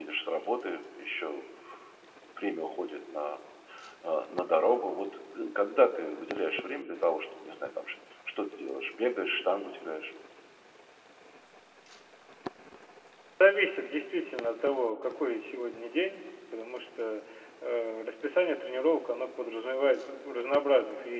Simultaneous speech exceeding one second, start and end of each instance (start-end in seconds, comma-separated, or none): none